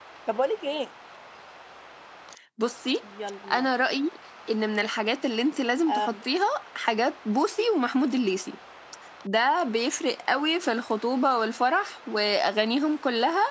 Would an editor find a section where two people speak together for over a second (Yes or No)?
No